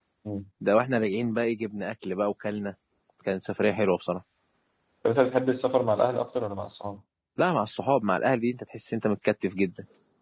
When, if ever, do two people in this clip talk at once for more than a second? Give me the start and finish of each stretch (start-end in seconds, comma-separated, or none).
none